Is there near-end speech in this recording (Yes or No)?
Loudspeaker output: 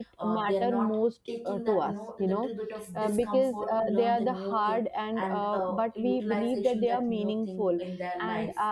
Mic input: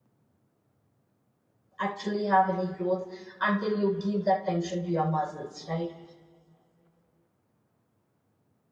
Yes